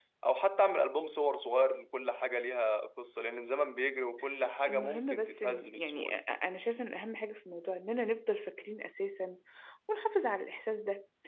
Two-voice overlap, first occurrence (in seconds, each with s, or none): 4.7 s